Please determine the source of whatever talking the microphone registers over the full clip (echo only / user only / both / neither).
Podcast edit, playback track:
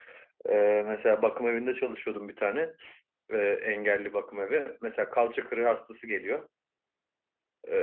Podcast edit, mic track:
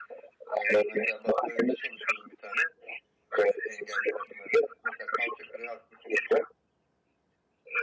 echo only